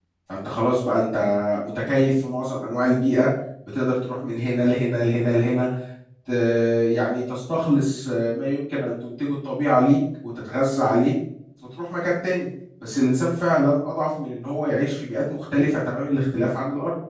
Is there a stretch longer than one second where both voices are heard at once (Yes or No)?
No